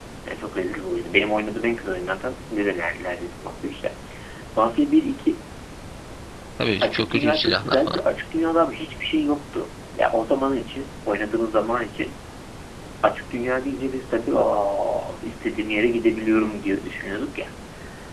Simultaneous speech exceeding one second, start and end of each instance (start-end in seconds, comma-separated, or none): 6.8-8.0